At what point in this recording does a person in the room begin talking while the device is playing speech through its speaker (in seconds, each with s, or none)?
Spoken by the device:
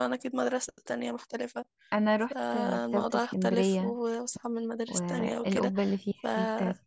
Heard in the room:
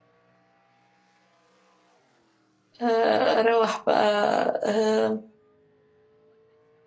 2.8 s